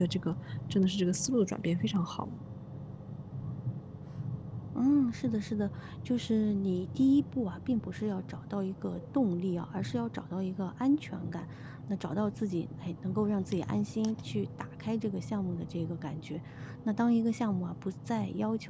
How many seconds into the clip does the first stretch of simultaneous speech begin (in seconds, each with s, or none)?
none